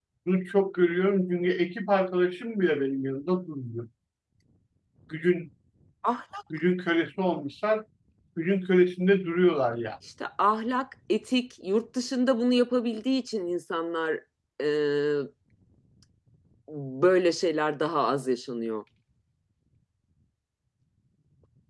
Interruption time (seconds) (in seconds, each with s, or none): none